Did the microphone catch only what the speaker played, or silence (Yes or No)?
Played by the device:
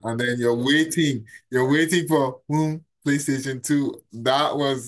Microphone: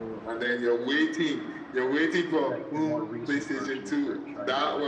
No